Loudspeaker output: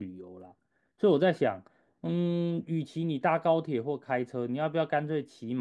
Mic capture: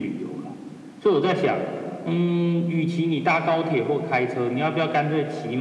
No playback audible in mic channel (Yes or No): No